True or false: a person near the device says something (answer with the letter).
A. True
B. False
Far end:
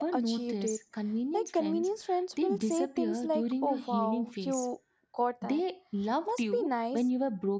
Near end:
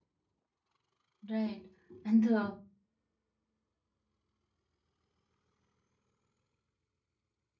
A